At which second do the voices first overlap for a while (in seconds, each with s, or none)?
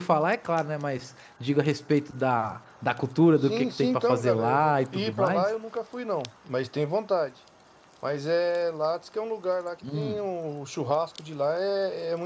3.4 s